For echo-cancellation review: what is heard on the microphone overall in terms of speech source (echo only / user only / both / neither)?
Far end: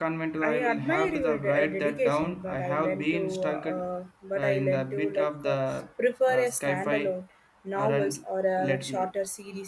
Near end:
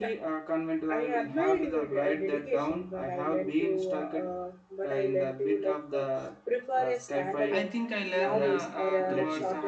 both